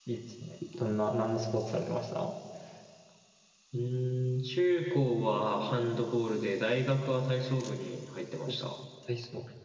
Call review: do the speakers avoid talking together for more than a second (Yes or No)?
Yes